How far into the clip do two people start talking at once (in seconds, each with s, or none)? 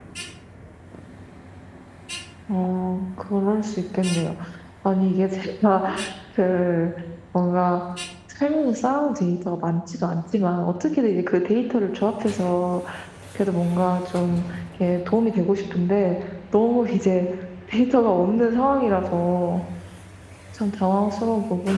none